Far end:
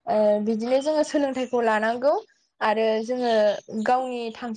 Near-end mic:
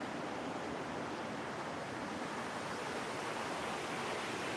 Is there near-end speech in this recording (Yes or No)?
No